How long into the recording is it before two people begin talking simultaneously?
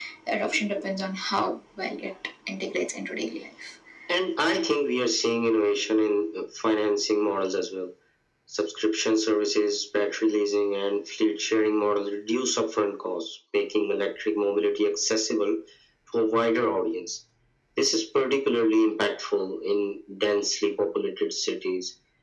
none

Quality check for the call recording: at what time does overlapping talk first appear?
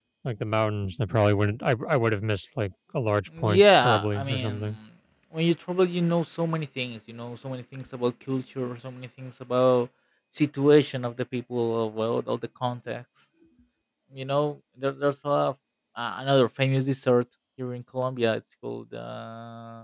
3.3 s

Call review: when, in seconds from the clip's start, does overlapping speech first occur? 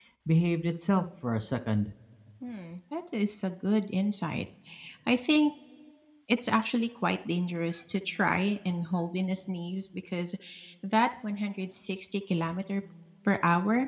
none

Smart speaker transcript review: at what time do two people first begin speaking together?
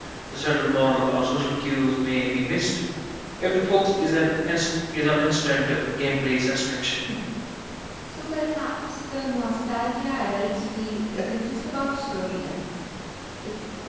none

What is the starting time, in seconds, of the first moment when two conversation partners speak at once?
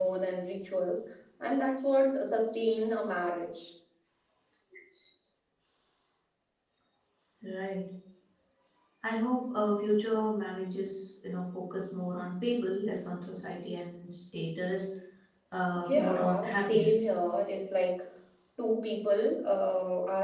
15.8 s

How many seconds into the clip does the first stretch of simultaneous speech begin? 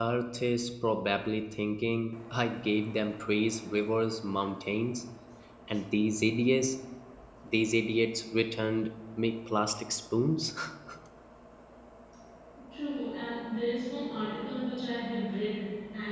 none

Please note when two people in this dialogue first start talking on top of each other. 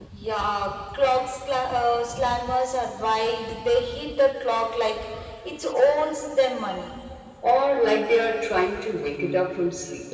none

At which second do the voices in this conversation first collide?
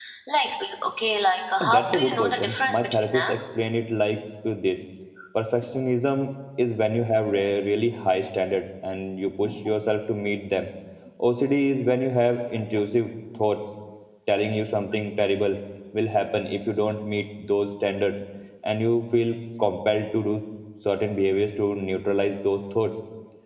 1.6 s

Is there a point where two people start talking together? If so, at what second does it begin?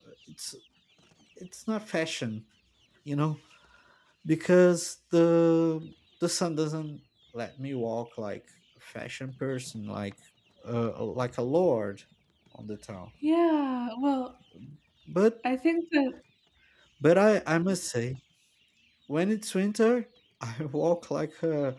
none

